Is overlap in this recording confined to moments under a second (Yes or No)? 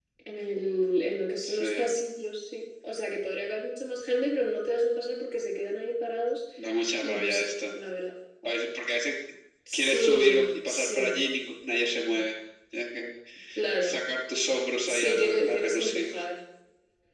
No